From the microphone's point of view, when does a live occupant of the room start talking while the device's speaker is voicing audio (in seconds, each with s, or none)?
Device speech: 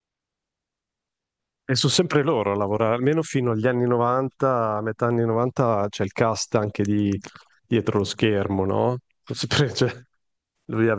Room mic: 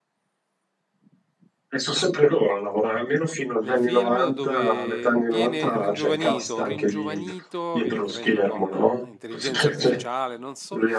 3.6 s